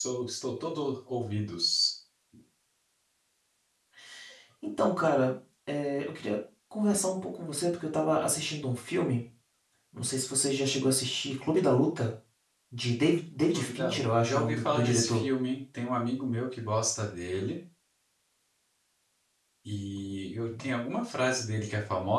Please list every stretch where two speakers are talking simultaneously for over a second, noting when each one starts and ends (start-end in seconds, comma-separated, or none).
13.5-15.2